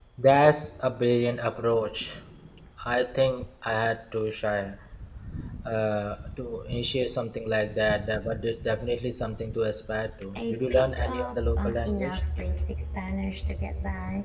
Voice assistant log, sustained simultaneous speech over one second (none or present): present